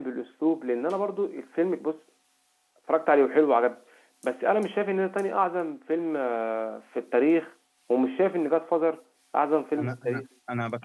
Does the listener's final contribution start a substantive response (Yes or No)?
Yes